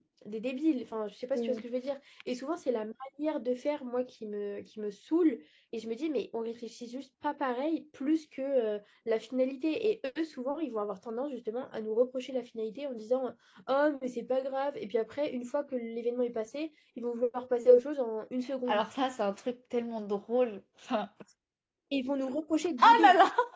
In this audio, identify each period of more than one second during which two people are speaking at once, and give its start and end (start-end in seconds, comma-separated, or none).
none